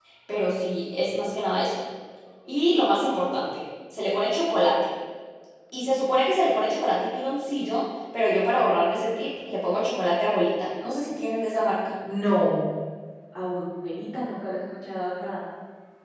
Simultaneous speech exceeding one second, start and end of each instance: none

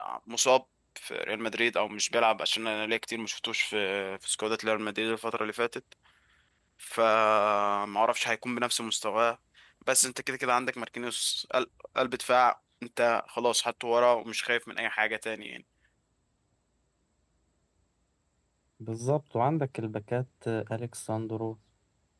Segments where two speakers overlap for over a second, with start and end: none

